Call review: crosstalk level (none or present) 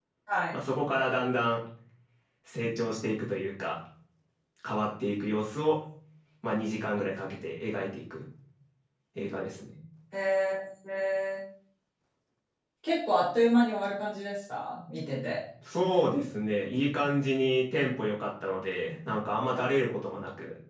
none